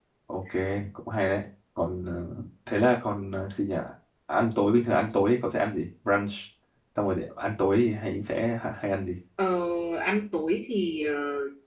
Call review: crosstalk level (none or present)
none